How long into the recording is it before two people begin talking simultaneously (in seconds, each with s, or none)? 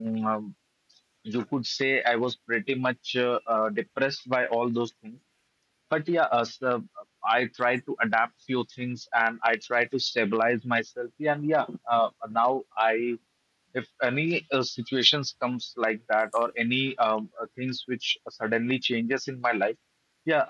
none